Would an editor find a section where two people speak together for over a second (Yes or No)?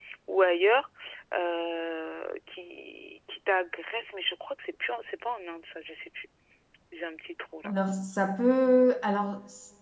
No